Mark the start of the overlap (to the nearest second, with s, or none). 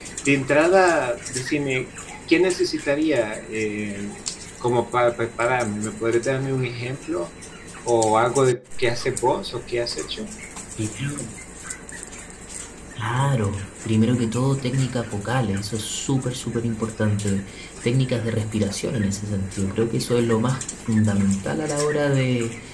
none